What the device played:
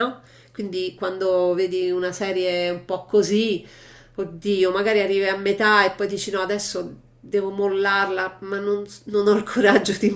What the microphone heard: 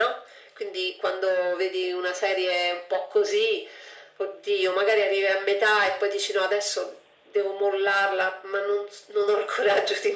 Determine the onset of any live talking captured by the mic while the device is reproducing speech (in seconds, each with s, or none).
none